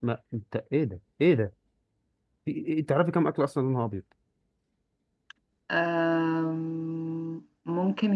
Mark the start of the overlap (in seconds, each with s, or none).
none